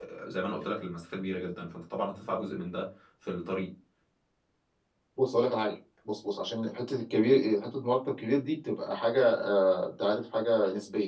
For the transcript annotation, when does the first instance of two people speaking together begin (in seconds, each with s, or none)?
none